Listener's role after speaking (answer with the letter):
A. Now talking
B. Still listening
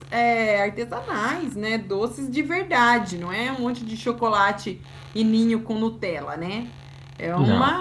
B